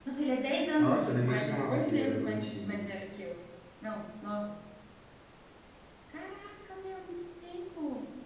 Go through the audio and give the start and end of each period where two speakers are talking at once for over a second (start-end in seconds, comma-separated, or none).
0.8-2.8